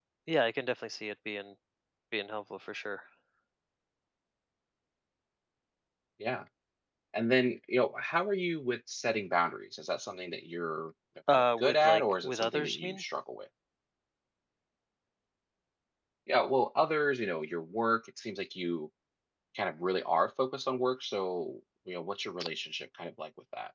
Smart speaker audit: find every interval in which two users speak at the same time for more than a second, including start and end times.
11.3-13.0

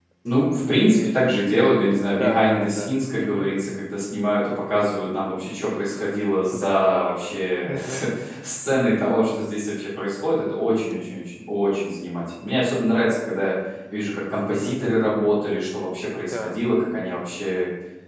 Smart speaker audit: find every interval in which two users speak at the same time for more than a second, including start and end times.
2.1-3.5, 6.5-7.8

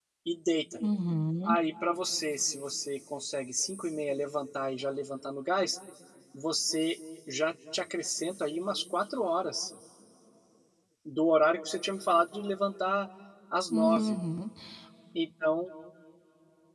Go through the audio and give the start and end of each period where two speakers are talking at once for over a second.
none

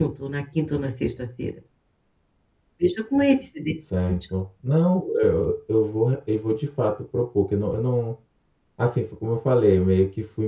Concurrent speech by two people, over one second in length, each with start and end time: none

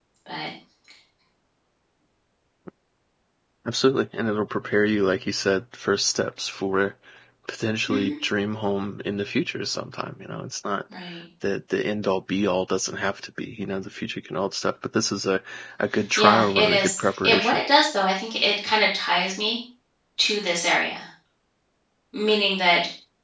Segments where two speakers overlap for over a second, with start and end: 16.2-17.6

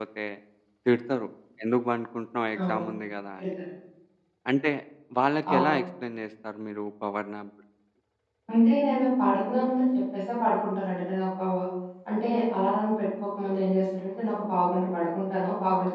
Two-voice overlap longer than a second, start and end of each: none

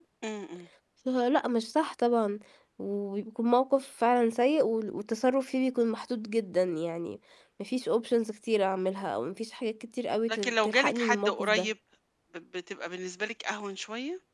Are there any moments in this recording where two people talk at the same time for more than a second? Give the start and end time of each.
10.3-11.7

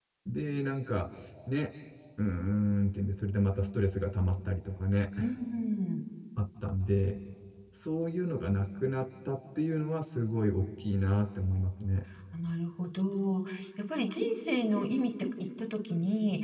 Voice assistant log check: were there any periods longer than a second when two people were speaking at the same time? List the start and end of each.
none

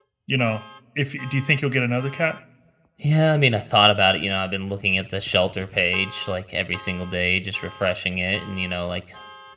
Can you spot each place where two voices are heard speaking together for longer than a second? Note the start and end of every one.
none

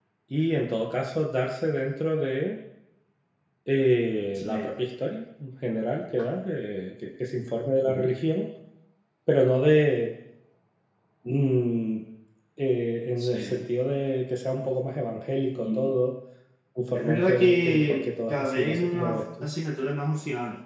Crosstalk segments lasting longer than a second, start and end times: 16.9-19.5

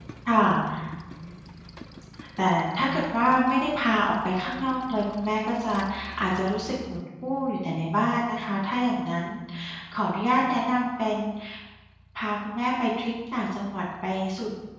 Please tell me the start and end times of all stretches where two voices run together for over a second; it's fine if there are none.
none

